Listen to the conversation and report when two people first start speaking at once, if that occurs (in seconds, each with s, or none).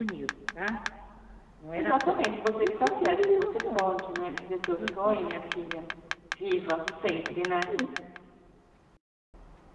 1.8 s